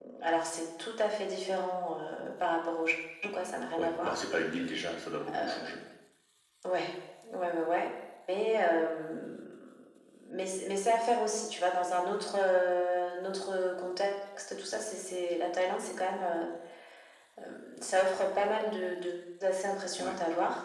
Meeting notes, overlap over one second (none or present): none